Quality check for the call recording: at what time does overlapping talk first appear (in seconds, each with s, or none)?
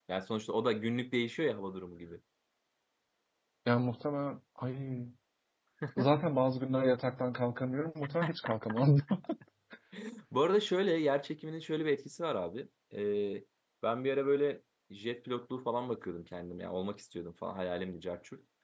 none